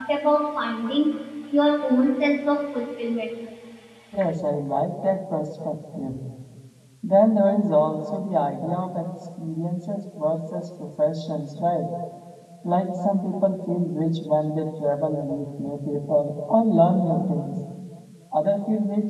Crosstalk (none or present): none